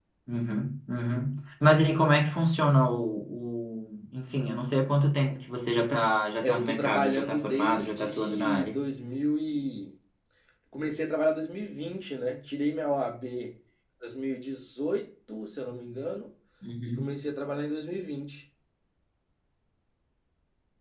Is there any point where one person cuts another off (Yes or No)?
Yes